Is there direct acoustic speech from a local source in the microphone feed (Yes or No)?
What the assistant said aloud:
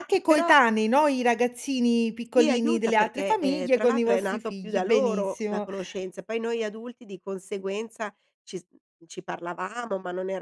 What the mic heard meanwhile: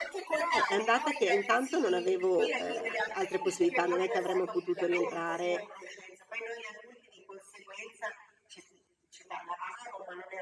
Yes